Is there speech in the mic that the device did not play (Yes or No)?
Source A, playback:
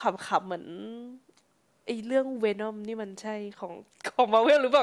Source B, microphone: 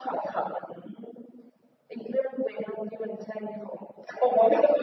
No